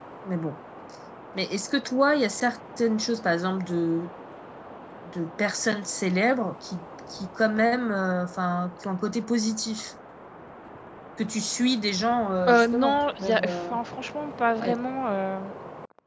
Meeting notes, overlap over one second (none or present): present